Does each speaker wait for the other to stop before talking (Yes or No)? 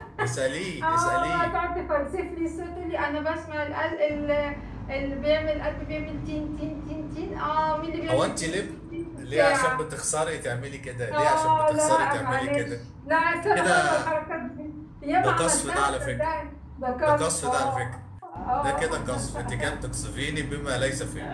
No